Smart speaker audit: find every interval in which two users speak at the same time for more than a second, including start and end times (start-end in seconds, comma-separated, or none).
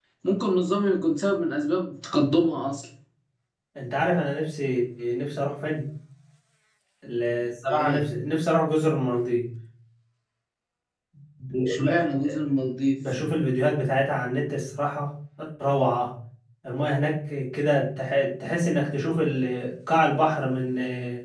none